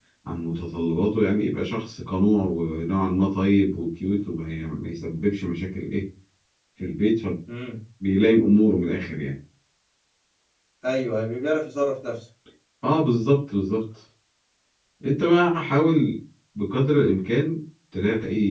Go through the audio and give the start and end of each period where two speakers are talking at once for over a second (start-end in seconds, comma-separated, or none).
none